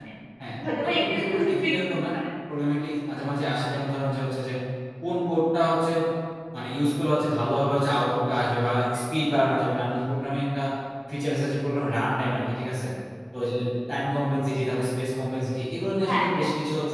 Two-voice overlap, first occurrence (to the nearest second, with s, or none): 1 s